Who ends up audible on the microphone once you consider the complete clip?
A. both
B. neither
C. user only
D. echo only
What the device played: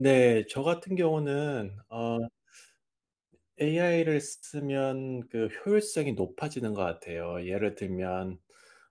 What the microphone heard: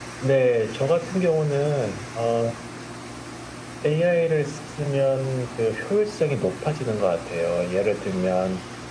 D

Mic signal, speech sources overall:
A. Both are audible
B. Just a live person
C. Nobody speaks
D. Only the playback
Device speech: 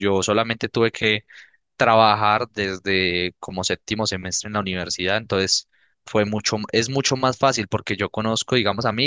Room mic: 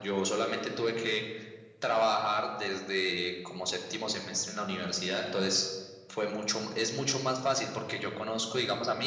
D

